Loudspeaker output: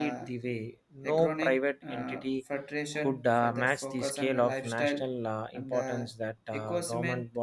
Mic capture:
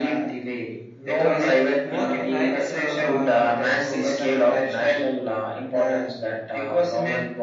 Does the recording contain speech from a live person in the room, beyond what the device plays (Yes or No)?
Yes